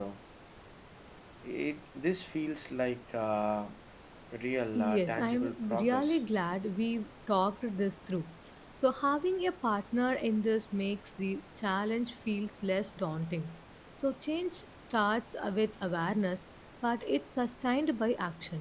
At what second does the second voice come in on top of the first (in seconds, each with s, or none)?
4.8 s